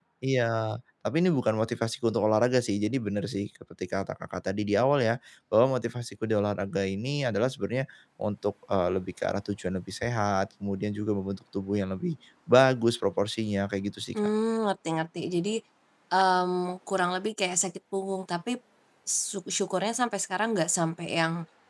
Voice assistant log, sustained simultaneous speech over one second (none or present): none